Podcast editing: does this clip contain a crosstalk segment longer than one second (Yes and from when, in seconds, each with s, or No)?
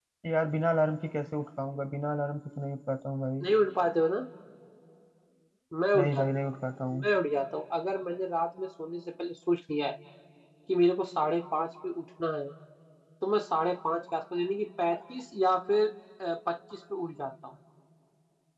No